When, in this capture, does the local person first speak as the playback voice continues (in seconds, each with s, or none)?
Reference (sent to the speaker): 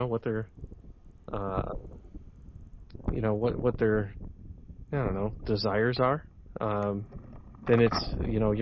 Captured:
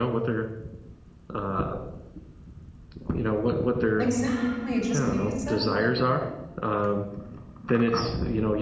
4.0 s